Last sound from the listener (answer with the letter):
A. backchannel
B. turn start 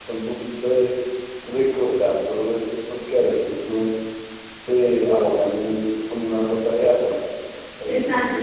B